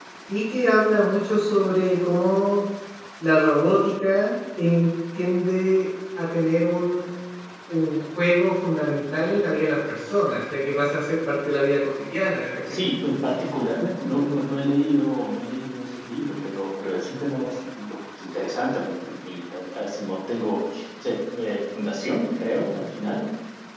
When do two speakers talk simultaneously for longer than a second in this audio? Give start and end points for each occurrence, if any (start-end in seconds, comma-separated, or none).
none